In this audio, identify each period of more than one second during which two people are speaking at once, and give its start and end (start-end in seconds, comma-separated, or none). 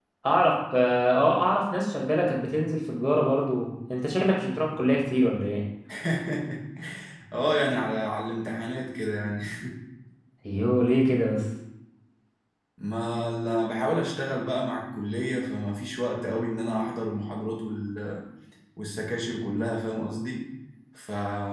none